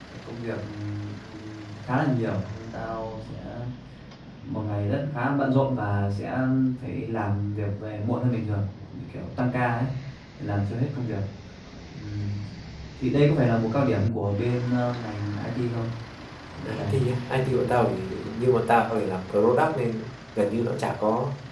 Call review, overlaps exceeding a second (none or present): none